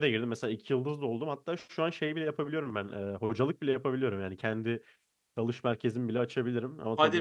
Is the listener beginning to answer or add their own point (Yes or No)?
Yes